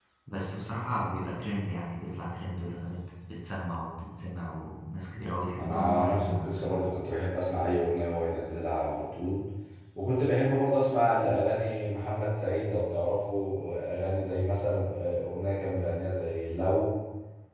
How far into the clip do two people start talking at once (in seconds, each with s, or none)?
5.6 s